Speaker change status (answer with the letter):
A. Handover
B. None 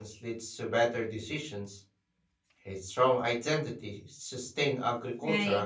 A